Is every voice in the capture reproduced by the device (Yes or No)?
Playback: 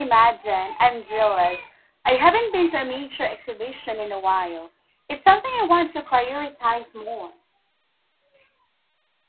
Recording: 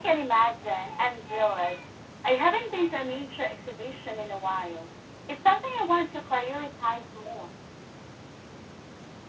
Yes